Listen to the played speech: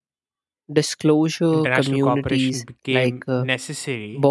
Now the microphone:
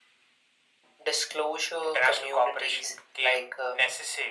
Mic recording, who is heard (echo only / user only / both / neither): echo only